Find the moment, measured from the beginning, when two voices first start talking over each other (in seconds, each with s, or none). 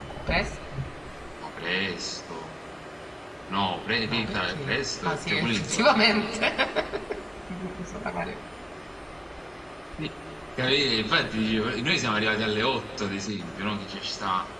4.1 s